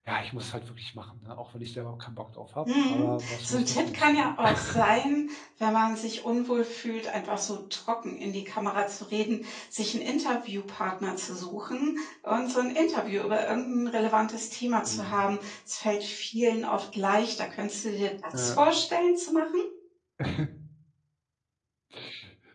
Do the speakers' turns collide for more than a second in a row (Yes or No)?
Yes